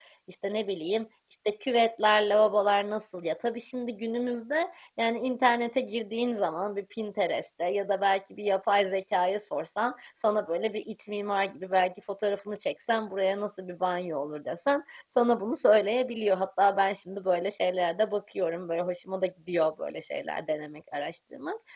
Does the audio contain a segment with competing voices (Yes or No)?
No